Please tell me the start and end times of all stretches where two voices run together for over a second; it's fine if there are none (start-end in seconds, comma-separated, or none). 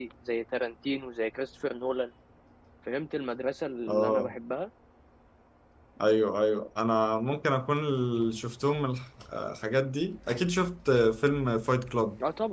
none